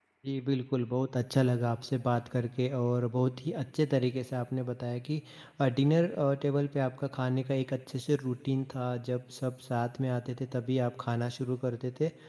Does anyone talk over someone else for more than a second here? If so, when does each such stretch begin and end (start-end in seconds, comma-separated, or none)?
none